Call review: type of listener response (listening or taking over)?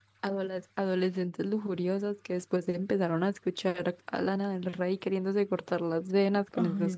taking over